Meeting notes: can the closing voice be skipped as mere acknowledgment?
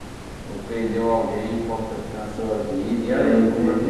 No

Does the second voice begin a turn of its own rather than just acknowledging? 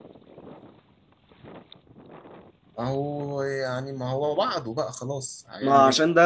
Yes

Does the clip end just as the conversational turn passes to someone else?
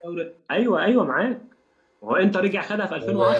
Yes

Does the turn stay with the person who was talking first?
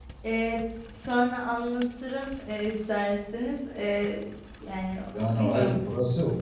No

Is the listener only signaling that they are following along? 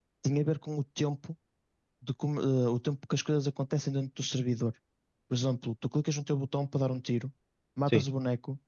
Yes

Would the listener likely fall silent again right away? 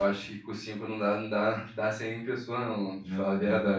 No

